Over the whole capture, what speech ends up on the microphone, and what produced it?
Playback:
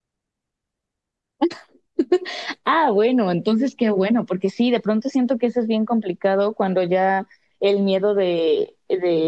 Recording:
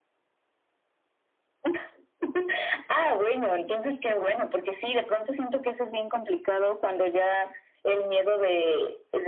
echo only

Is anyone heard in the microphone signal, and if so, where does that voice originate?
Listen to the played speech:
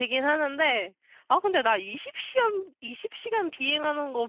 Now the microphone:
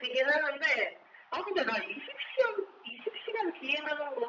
echo only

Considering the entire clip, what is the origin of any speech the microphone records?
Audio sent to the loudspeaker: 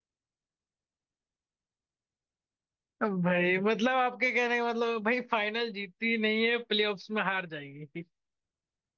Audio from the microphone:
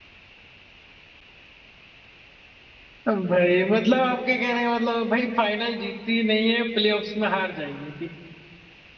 echo only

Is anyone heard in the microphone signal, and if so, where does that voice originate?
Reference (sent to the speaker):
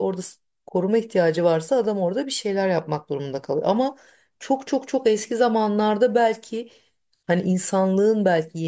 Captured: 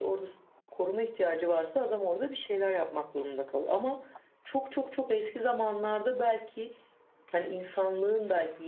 echo only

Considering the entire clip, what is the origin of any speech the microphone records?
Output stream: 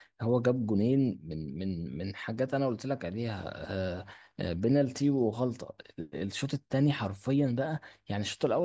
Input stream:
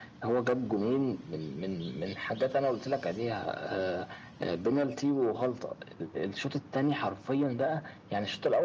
echo only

